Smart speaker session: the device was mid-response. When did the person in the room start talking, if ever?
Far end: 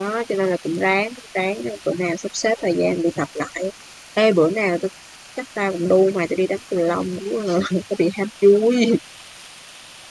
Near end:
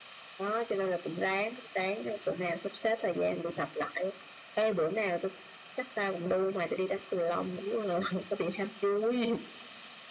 none

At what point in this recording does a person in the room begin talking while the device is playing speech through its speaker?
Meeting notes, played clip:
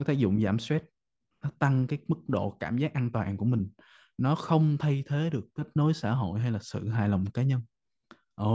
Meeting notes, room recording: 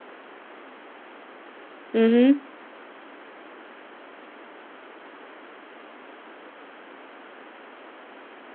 2 s

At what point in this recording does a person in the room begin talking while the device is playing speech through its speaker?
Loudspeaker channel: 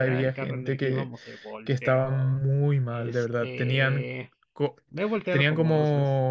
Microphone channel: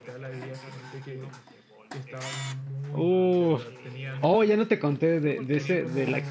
3 s

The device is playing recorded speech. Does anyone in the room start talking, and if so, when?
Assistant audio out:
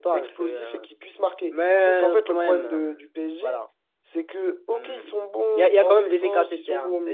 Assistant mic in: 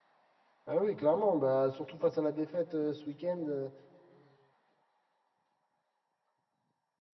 1 s

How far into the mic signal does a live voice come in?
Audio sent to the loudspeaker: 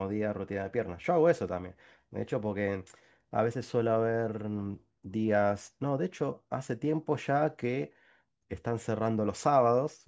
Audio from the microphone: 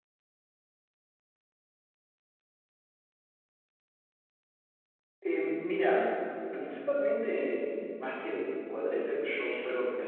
5 s

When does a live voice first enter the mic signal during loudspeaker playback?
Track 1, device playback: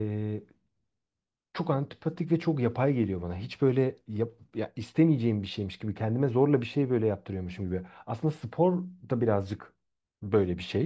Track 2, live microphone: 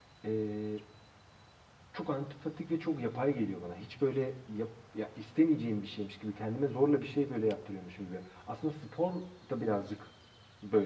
none

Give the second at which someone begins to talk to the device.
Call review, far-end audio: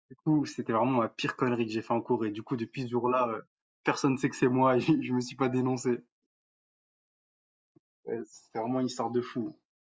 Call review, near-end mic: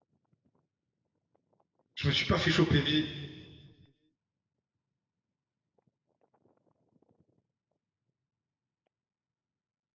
2 s

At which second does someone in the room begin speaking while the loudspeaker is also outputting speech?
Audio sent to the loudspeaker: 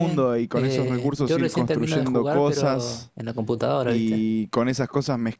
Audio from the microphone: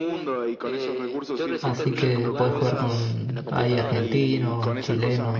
2 s

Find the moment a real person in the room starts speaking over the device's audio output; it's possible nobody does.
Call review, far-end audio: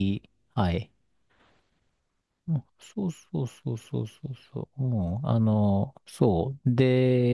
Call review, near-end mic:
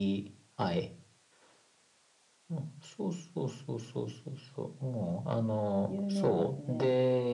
6 s

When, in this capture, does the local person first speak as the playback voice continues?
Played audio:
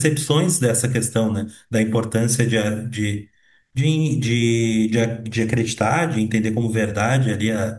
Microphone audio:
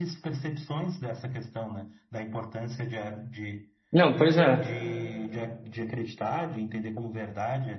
4 s

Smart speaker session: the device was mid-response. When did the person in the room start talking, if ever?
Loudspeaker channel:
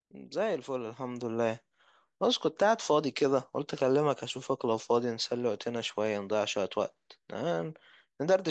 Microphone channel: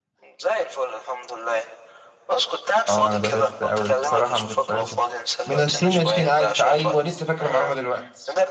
3 s

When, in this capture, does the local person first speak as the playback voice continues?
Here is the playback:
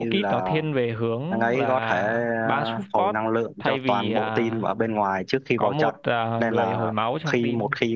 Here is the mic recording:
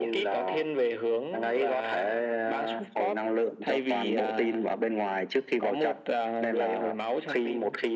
none

